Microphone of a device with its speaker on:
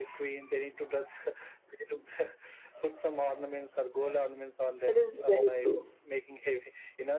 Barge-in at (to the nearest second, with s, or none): 5 s